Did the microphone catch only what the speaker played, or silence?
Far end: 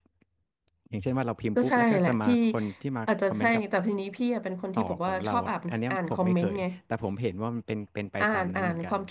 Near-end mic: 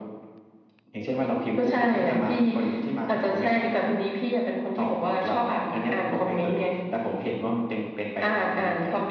Yes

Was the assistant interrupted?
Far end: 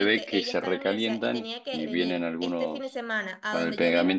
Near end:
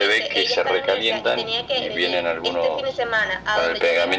No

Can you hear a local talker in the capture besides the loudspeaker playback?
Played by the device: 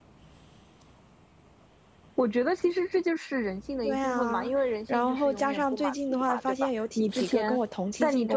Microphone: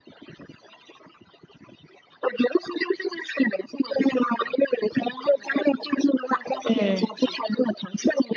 Yes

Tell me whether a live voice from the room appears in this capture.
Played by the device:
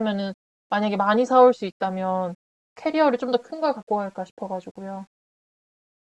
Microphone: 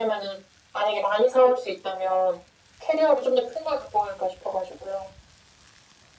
No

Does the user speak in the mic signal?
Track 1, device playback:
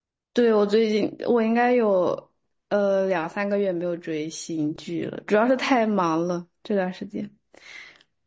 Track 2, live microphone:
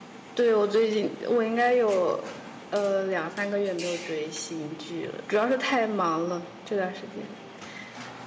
No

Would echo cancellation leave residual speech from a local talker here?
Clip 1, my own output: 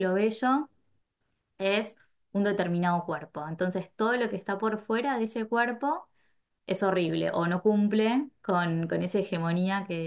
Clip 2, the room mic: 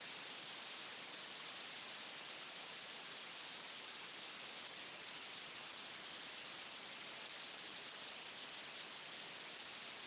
No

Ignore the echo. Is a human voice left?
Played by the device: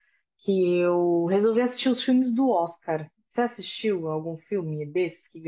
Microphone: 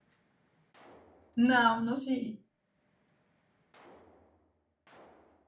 Yes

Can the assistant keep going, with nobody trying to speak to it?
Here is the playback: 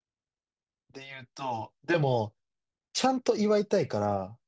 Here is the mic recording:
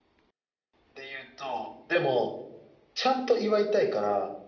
Yes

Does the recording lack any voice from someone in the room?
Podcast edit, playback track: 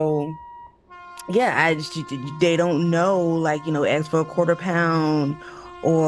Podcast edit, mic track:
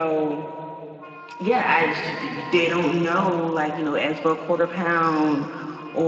Yes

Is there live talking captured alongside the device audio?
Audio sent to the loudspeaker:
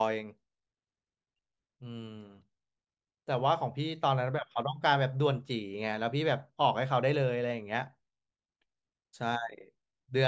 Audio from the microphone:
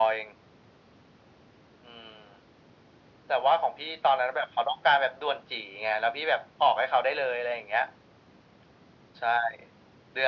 No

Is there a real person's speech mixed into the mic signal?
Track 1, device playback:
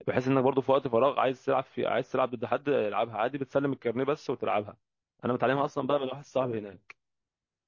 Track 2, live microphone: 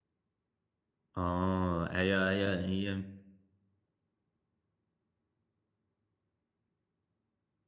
Yes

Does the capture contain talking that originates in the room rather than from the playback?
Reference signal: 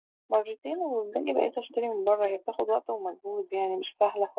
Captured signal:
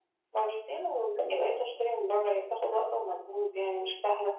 No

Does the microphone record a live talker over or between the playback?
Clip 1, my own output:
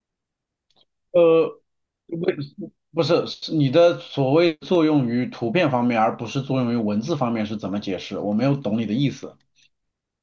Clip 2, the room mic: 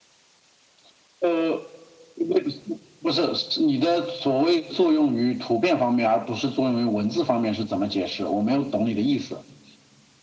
No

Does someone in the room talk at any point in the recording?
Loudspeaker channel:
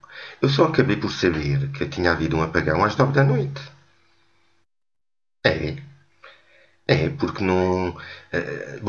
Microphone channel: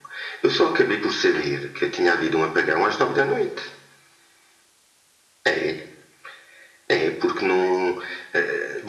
No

